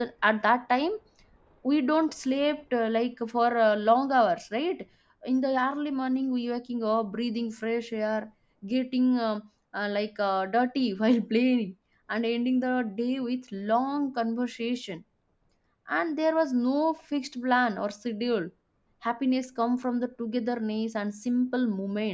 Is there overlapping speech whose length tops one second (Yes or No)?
No